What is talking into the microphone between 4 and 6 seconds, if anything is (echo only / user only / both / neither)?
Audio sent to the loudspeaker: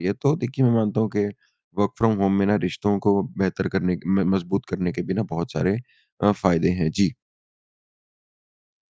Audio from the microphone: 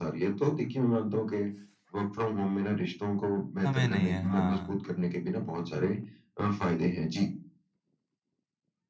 both